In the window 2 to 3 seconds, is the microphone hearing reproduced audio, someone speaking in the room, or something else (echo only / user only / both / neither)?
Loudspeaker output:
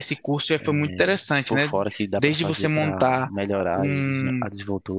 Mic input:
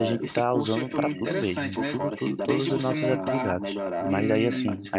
both